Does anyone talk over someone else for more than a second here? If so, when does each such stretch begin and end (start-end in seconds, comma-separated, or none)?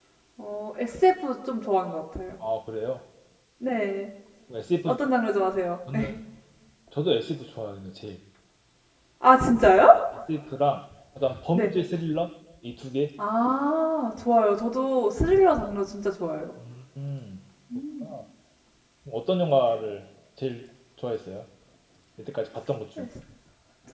none